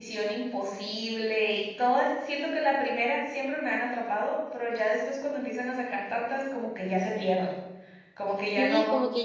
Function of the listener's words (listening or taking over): taking over